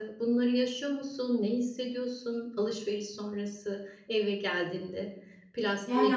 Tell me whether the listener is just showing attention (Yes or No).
No